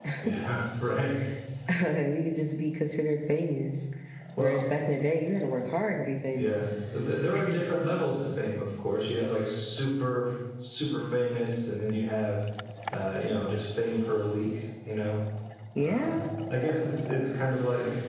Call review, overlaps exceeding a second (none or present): none